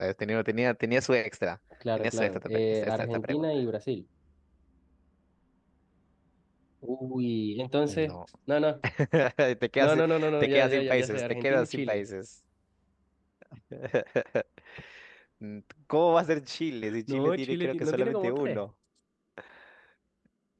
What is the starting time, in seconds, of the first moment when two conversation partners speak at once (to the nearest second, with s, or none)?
2 s